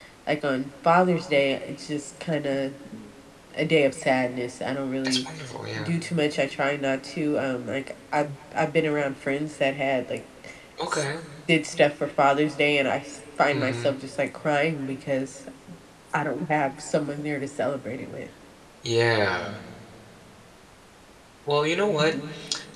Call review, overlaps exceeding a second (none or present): none